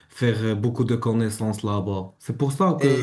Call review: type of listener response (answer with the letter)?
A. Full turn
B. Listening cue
A